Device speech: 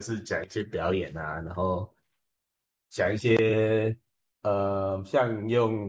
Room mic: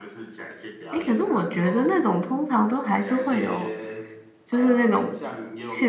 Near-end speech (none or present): present